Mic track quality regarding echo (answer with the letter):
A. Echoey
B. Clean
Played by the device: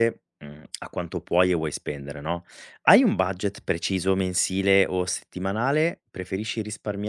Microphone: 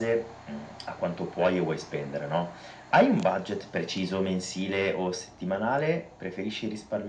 A